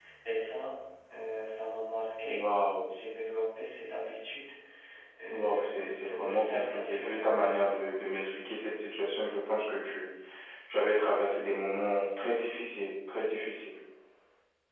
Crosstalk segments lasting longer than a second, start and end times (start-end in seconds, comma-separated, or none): 5.3-7.8